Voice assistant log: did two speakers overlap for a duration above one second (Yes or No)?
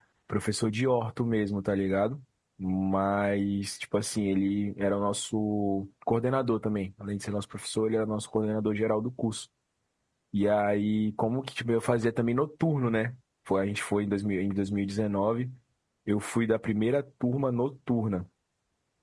No